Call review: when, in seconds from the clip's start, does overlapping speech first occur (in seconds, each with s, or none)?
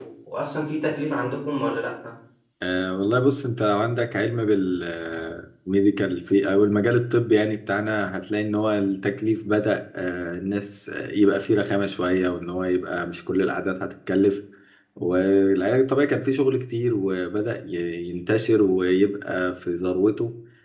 none